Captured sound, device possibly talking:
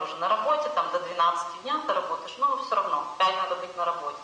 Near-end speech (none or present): none